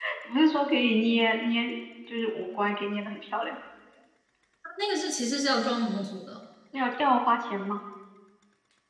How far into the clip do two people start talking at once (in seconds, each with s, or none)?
none